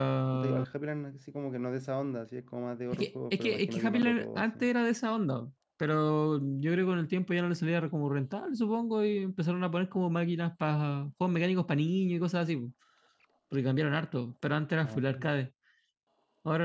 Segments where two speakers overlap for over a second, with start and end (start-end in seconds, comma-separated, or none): 2.9-4.6